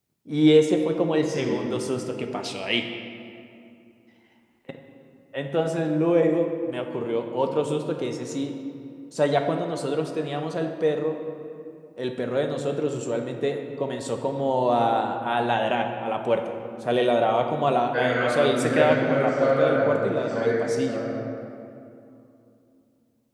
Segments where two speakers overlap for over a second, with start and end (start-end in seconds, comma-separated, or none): 17.9-21.0